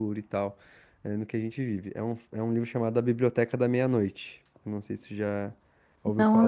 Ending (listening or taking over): taking over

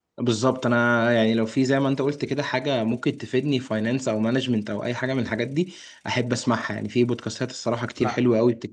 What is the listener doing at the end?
listening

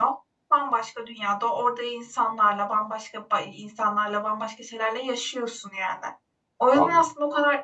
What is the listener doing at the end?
listening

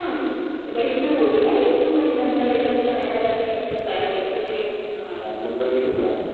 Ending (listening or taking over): taking over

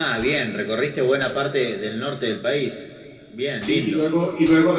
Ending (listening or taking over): taking over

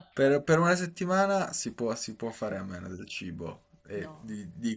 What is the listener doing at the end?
listening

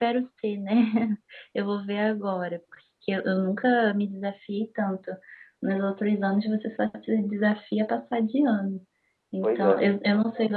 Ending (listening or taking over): listening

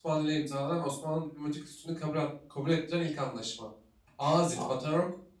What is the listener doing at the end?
listening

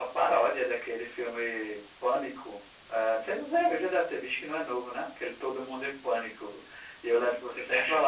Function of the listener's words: listening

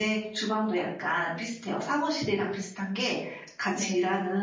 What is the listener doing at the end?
listening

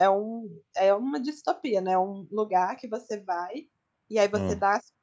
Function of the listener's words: listening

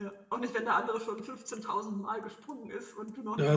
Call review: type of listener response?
taking over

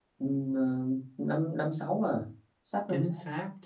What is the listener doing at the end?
taking over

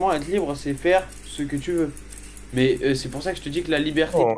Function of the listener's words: taking over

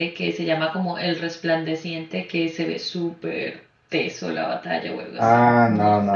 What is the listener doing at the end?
taking over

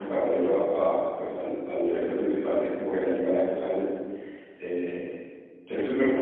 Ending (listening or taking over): listening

